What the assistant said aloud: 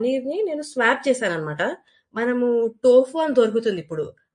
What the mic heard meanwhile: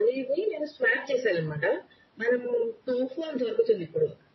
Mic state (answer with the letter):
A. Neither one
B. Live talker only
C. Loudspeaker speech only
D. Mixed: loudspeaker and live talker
C